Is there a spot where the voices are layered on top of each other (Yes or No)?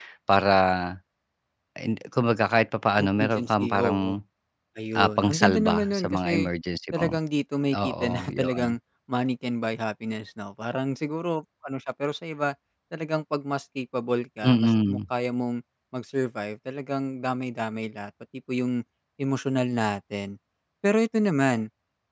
Yes